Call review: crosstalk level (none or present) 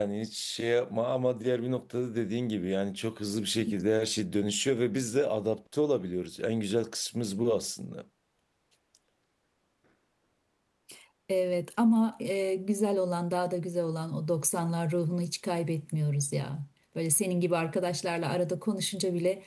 none